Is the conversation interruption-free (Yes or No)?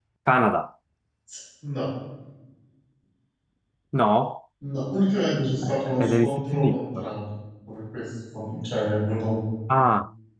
No